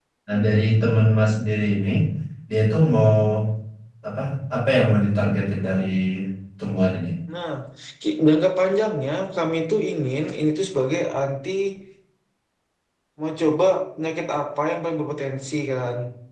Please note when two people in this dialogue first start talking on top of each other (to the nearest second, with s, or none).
none